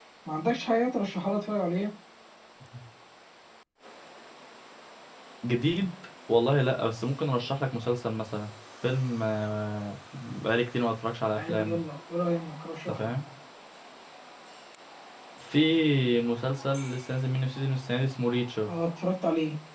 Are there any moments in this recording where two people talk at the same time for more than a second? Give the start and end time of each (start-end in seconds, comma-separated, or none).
none